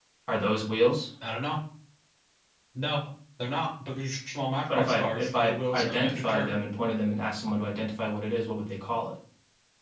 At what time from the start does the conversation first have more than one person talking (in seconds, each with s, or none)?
4.7 s